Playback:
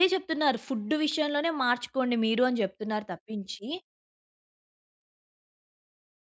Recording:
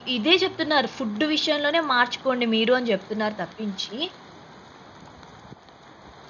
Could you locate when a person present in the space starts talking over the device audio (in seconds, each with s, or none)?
none